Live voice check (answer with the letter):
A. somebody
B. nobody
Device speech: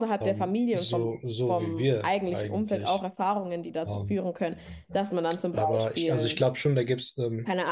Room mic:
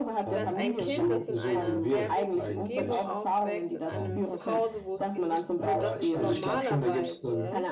A